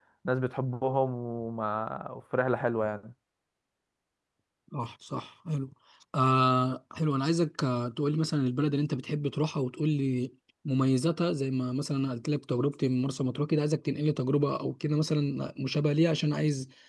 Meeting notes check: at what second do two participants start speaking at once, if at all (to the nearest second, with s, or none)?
none